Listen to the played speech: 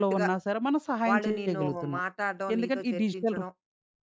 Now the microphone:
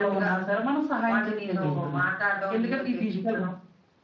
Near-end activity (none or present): none